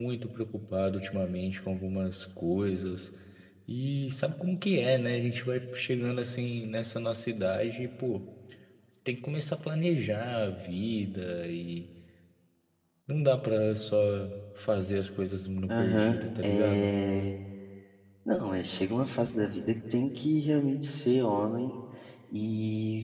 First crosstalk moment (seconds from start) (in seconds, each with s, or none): 15.7 s